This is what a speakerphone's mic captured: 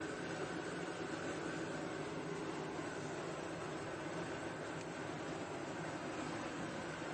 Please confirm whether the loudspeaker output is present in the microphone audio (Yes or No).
No